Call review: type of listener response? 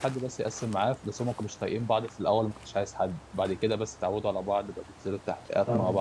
taking over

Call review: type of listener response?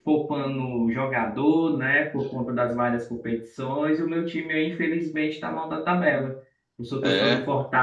listening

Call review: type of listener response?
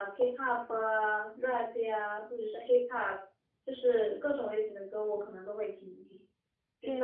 listening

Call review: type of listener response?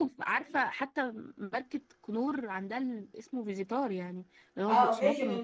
taking over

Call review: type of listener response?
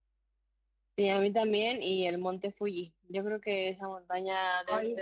taking over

